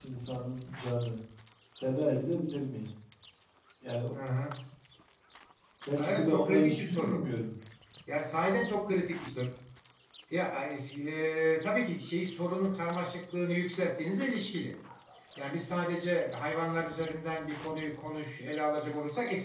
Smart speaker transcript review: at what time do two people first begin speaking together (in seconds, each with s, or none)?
6.0 s